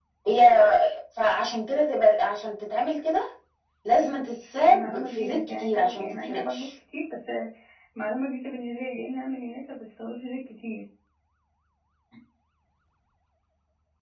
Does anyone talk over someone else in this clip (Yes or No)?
Yes